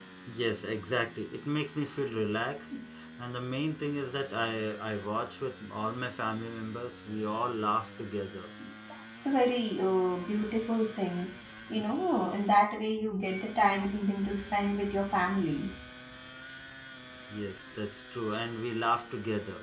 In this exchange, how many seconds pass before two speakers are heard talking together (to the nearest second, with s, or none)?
none